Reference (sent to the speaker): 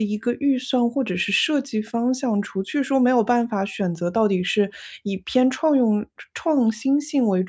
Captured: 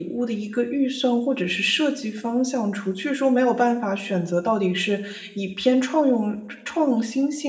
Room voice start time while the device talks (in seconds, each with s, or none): none